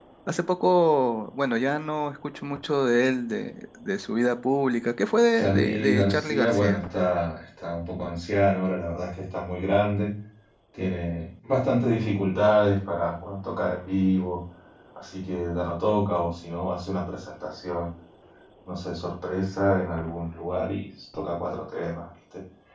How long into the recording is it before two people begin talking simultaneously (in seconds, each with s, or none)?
5.3 s